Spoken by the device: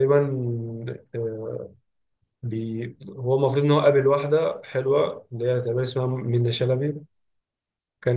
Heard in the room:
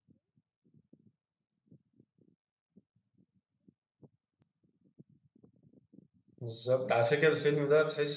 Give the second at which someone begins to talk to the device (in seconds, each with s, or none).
6.4 s